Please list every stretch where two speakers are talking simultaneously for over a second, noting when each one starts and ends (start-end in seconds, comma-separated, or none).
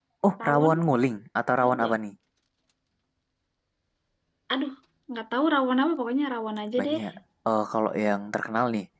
none